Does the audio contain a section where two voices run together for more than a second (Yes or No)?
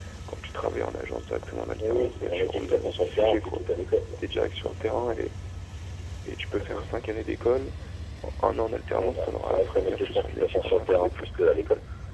Yes